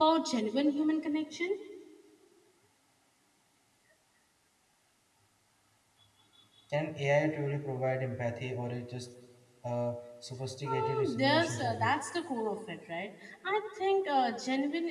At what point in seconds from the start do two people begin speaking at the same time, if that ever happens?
10.7 s

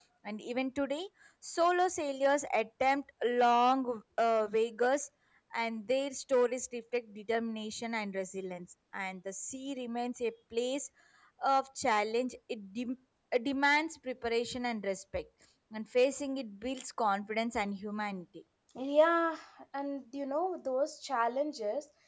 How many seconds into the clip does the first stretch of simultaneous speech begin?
none

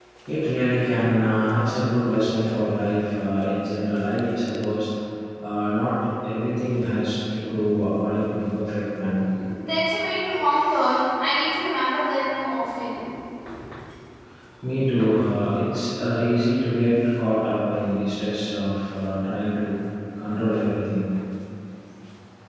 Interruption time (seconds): none

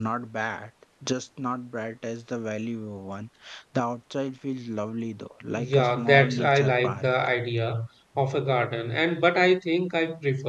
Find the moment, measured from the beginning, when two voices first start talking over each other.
5.5 s

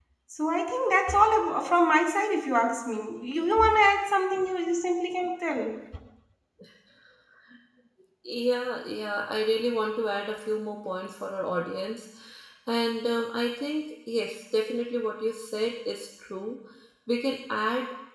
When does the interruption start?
none

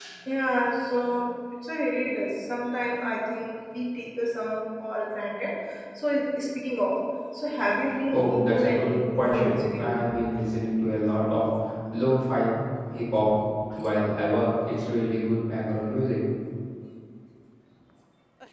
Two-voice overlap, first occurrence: 8.1 s

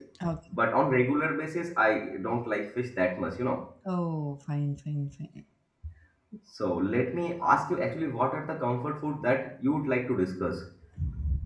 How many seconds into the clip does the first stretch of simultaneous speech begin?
none

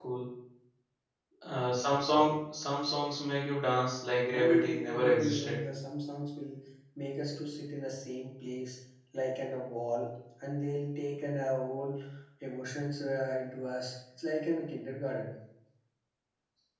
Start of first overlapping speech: 4.3 s

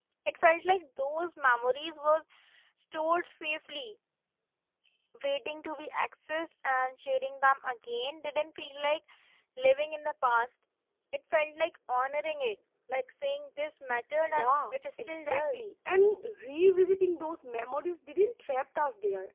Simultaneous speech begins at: 14.2 s

